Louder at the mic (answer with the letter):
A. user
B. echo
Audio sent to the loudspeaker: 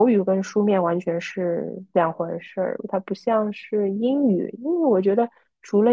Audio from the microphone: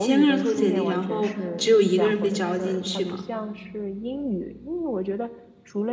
A